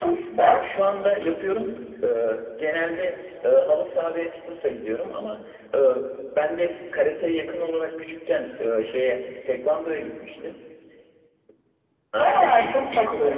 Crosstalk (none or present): present